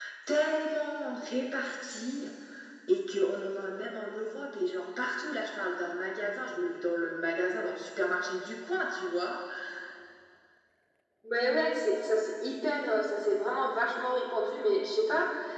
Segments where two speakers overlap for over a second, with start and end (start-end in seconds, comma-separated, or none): none